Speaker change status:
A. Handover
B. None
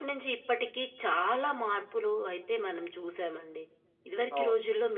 B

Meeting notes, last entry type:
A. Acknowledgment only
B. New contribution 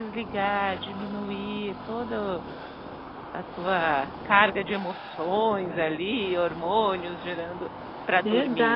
B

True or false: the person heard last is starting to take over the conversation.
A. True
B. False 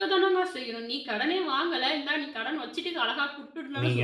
A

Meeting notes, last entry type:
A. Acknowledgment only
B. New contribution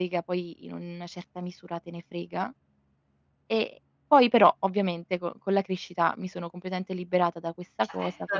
B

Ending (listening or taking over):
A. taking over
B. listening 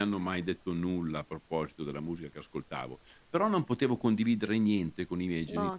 B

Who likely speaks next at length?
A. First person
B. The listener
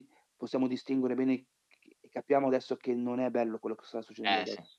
B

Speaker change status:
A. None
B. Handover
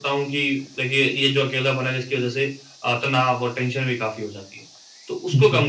A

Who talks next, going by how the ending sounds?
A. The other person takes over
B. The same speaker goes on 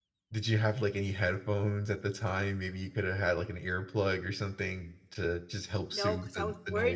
A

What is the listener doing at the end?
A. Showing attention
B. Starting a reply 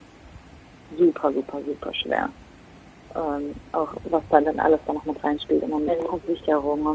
A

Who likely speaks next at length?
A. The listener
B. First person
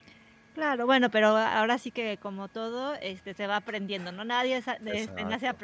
B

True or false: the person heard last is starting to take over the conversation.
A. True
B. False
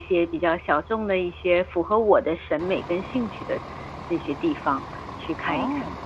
A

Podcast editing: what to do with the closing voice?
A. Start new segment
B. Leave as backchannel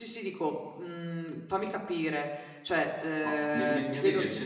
A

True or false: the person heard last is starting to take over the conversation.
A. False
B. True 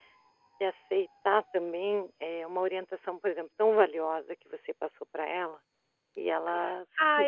B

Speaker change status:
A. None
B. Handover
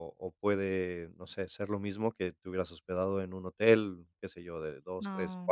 A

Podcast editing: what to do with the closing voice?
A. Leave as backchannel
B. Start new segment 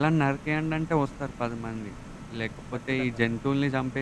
A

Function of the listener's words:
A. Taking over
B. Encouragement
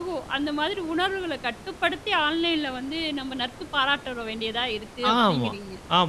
A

